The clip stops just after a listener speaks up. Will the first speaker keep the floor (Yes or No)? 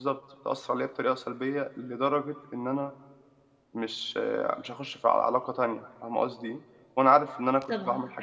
No